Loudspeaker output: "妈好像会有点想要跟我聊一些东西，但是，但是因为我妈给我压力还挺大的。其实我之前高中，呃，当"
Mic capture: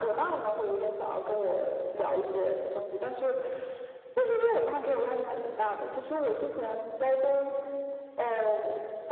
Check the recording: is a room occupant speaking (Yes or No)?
No